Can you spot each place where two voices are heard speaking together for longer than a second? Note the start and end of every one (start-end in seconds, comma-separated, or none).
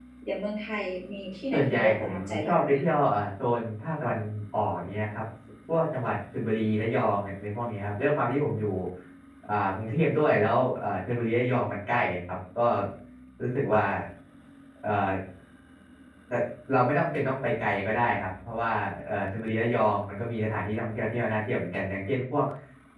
1.5-2.8